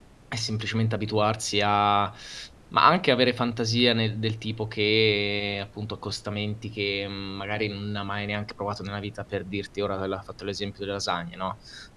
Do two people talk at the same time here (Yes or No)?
No